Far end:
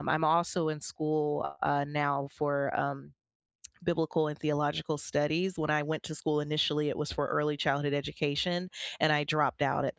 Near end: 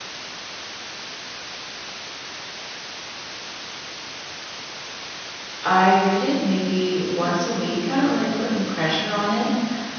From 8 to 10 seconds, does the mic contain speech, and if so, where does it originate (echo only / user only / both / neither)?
user only